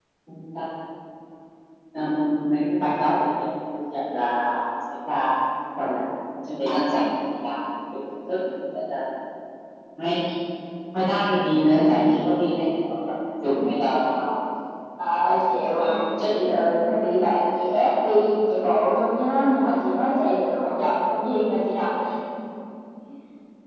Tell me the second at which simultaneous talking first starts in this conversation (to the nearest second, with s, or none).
15 s